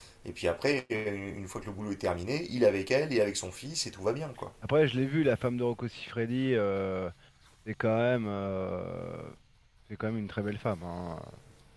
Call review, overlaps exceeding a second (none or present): none